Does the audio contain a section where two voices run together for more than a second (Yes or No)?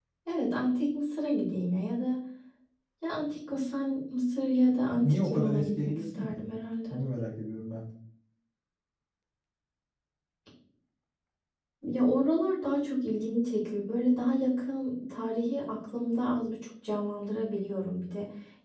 Yes